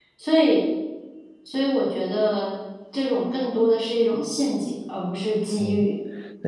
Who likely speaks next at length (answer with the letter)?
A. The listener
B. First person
A